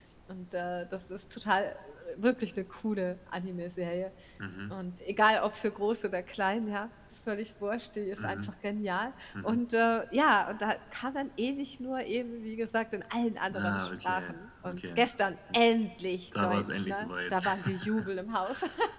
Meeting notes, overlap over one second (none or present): present